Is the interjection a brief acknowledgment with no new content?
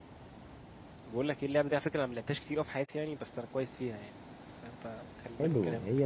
No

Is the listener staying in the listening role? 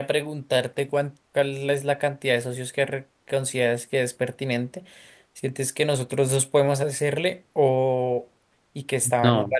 Yes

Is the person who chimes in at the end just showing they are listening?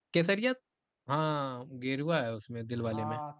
No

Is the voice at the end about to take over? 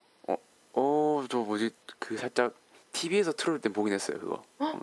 Yes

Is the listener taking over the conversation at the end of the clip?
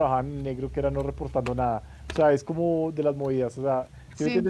No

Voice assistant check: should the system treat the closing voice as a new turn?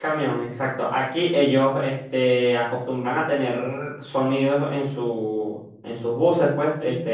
No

